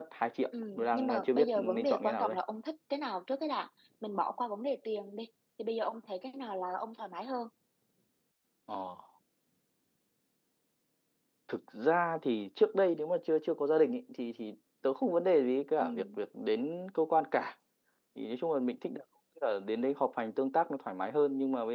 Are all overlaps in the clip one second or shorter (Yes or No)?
No